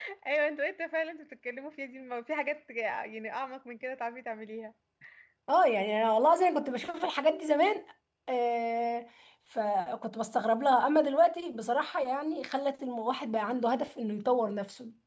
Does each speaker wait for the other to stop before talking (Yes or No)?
Yes